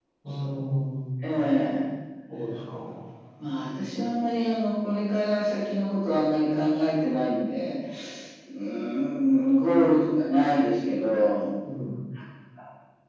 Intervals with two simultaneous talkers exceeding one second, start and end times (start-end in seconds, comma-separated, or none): none